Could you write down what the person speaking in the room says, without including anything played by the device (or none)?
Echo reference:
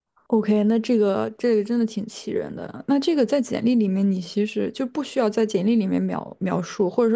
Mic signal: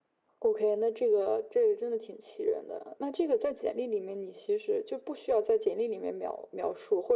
none